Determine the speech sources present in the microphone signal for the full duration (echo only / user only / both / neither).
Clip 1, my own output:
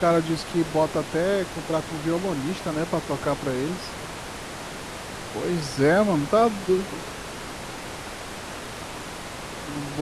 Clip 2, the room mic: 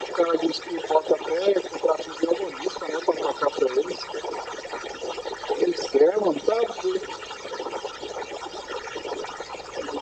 echo only